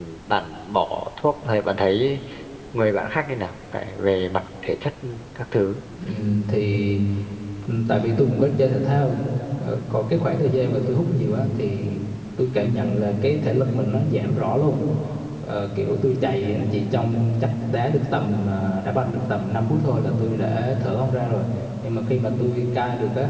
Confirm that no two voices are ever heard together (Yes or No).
Yes